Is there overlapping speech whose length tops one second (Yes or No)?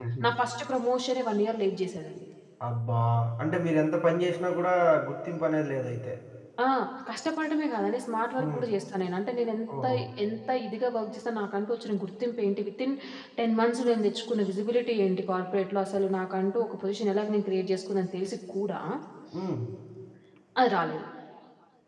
No